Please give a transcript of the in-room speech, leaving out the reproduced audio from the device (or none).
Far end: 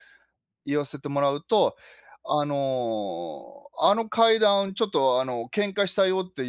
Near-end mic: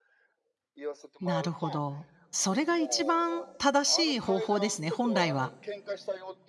なるほど。それが一番正しい方法ですね、本来は。